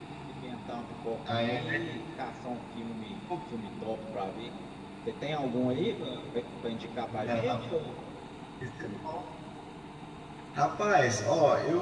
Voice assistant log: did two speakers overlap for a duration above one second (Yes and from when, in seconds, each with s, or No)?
No